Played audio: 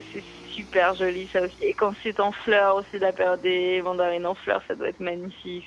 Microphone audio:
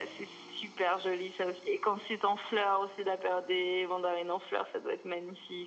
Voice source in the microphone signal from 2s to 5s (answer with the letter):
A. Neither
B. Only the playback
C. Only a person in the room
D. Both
B